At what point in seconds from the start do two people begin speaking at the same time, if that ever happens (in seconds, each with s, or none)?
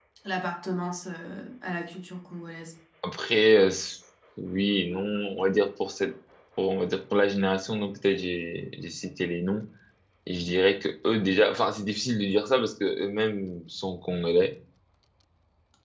none